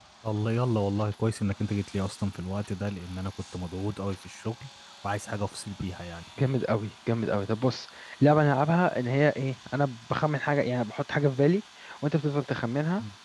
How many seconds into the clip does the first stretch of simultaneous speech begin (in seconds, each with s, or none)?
none